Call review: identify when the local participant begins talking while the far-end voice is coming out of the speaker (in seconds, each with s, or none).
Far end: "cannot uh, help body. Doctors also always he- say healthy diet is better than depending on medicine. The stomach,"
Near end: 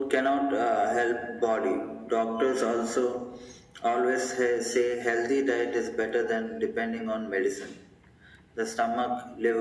none